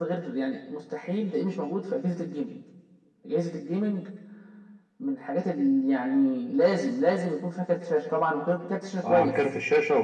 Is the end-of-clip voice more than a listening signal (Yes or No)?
Yes